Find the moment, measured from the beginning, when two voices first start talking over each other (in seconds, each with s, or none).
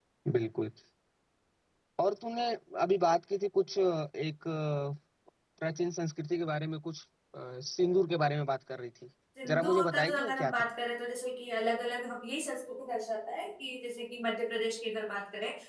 9.4 s